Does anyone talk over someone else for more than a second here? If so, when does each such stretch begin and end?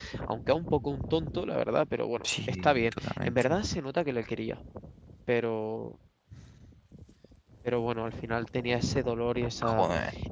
2.2-3.6

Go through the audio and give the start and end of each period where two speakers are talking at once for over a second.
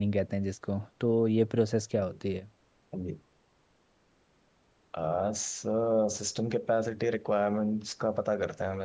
none

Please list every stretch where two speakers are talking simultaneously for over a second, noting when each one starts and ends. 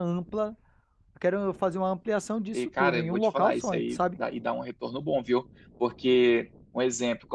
2.5-4.0

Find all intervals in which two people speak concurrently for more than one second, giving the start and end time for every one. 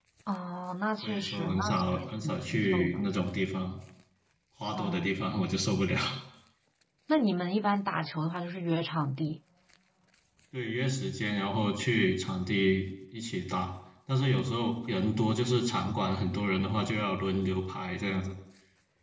1.0-3.0

